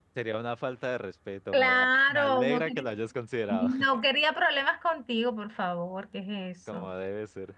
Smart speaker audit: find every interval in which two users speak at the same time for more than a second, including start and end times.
1.5-2.9

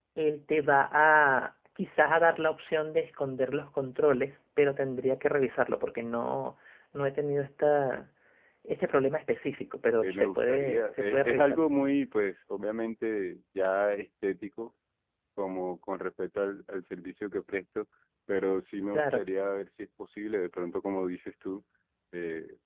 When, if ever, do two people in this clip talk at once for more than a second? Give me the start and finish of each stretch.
10.0-11.6

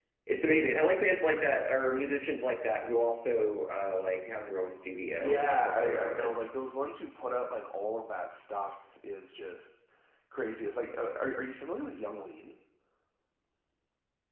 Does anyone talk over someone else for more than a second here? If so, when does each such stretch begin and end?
5.1-6.5

